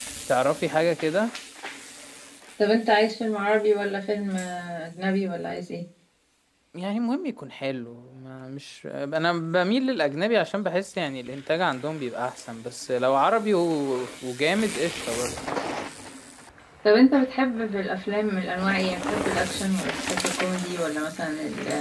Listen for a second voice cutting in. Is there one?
No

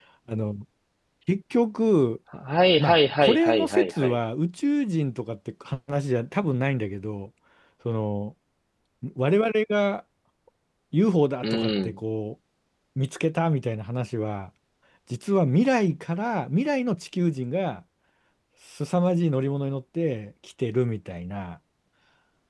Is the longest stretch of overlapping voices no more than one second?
No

